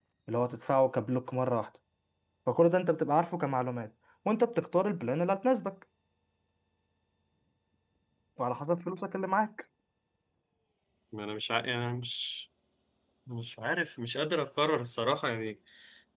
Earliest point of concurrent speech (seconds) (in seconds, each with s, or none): none